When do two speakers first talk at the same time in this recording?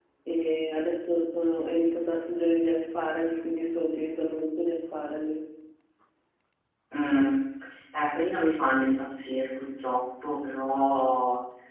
none

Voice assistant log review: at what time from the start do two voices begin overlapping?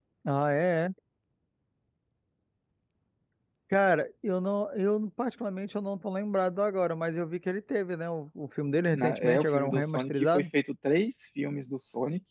8.9 s

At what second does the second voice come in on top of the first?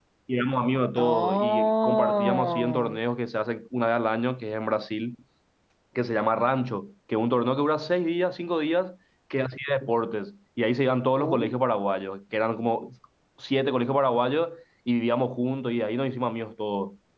1.0 s

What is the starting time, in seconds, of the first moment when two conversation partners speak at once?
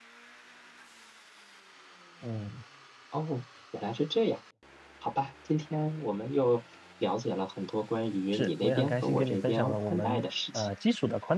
8.3 s

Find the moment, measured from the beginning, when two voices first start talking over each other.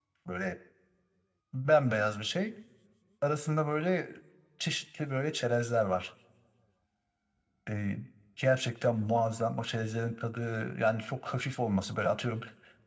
none

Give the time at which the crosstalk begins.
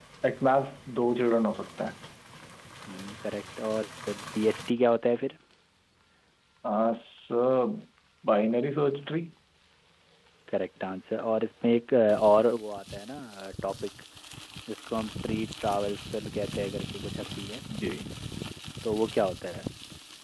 none

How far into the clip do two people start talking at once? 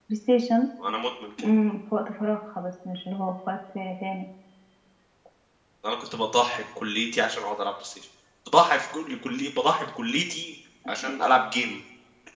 none

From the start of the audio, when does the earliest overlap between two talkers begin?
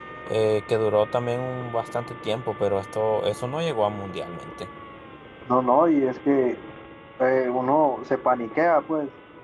none

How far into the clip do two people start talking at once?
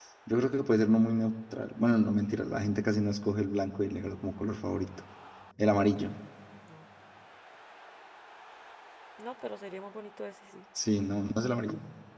none

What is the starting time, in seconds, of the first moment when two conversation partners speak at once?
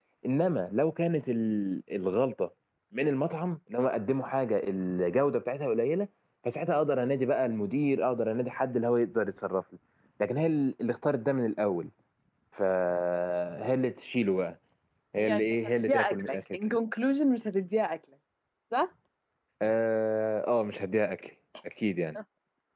15.2 s

